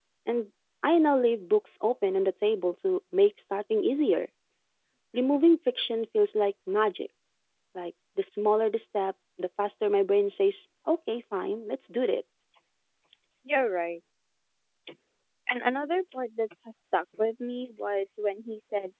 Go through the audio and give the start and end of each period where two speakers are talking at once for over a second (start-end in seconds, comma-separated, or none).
none